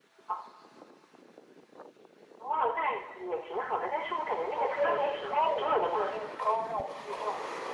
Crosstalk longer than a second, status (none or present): present